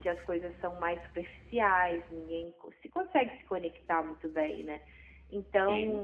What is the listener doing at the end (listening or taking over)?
listening